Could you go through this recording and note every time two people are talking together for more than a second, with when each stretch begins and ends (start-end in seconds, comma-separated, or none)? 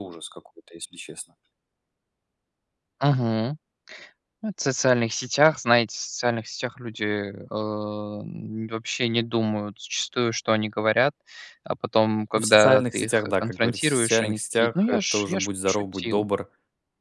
12.4-16.2